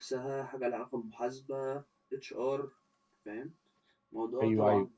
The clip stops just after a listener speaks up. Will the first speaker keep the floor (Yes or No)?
No